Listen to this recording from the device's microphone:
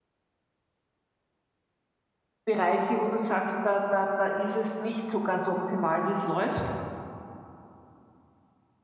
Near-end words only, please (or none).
Bereiche, wo du sagst, da da da ist es nicht so ganz optimal, wie es läuft?